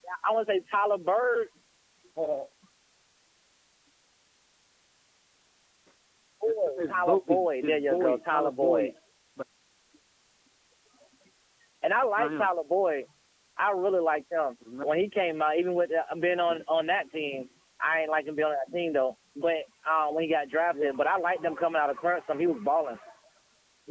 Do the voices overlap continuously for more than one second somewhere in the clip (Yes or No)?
Yes